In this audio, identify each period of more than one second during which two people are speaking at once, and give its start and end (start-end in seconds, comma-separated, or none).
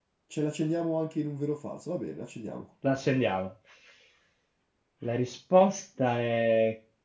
none